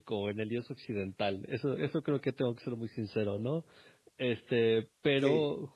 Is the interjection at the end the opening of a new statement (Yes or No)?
No